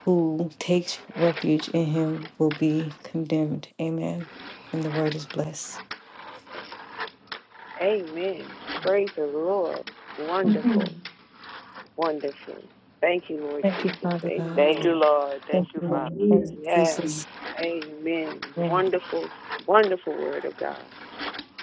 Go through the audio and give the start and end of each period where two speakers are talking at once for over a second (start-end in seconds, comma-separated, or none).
13.6-15.0, 15.5-17.2